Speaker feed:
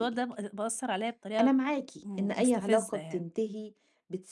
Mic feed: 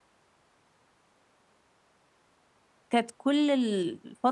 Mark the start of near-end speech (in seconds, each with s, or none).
2.9 s